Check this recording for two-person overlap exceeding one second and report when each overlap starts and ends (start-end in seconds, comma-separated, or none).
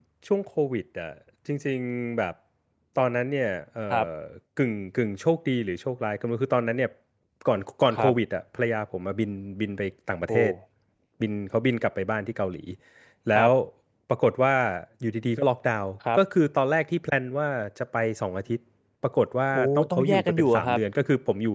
19.5-20.8